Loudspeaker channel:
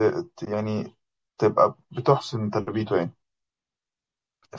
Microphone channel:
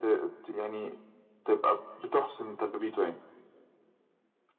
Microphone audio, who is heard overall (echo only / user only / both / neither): echo only